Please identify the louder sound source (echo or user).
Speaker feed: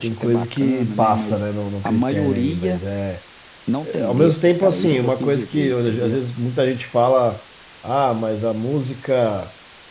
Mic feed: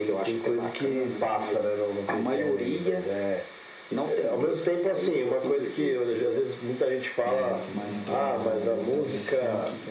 echo